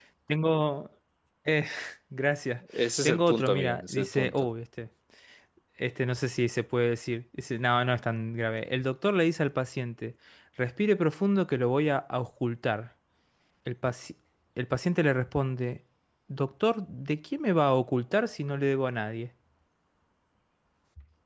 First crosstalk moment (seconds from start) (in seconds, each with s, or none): 3.0 s